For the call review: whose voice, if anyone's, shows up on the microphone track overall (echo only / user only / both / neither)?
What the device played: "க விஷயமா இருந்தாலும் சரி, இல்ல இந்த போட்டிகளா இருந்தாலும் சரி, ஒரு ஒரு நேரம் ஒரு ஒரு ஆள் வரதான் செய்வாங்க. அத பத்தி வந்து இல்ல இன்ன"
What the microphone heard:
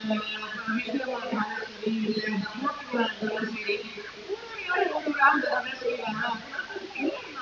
echo only